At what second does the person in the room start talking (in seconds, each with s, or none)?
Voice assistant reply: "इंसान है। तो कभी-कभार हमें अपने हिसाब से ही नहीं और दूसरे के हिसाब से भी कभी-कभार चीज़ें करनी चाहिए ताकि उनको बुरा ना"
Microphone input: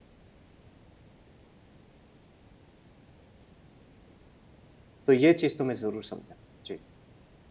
5.1 s